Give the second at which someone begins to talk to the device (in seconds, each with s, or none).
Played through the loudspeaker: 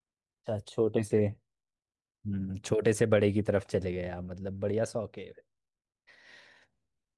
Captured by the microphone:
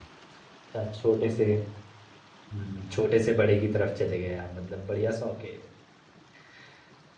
none